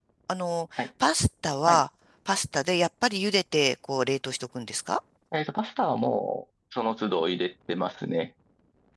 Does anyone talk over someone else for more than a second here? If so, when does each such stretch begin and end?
none

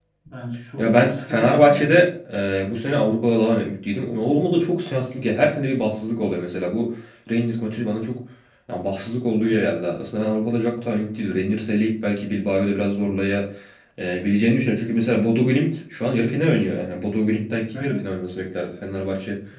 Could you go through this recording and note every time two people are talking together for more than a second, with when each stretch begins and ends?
0.8-2.0

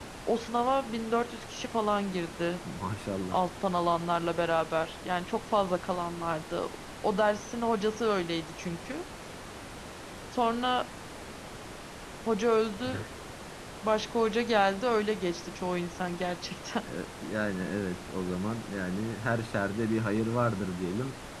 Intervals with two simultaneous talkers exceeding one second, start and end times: none

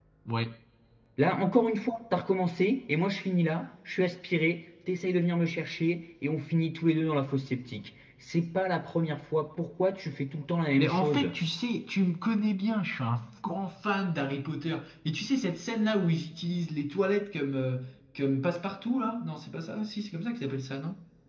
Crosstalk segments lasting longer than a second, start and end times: none

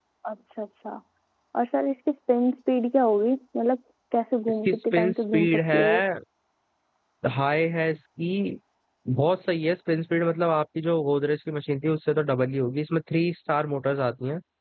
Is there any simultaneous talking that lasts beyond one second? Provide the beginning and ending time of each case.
4.5-5.8

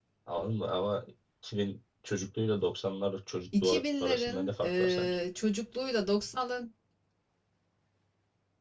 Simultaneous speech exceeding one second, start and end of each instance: 3.6-5.1

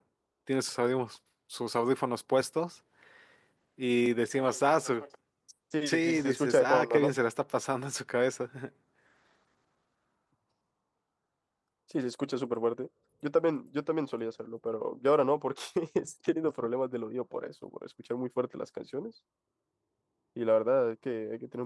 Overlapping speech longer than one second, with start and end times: 5.9-7.1

